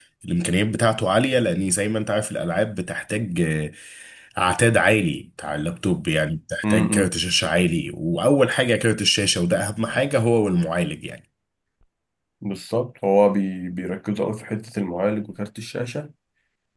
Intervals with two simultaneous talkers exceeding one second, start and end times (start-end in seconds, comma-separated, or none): none